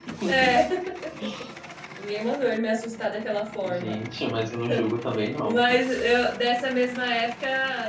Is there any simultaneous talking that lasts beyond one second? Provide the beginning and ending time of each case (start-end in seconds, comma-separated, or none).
none